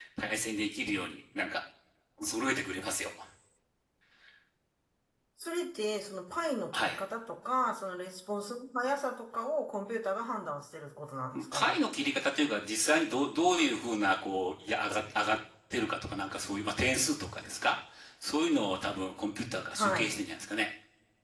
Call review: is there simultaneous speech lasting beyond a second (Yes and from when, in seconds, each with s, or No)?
No